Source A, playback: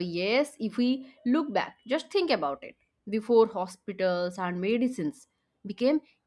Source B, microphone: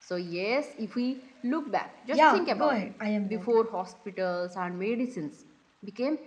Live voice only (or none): Yeah, go ahead. I am ready.